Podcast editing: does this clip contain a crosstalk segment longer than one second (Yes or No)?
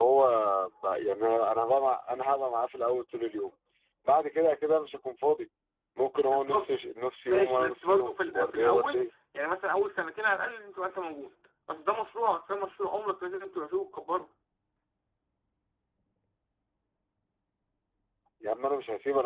Yes